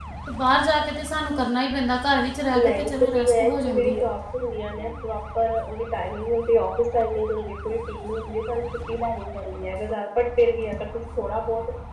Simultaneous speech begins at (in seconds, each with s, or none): 2.5 s